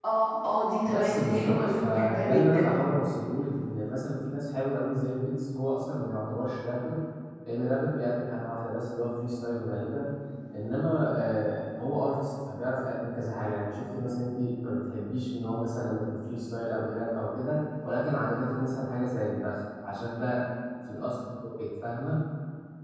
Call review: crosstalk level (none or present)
present